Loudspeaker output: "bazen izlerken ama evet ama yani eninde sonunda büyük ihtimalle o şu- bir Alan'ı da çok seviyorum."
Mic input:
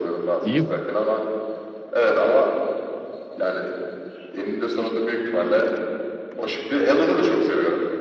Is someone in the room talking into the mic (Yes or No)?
Yes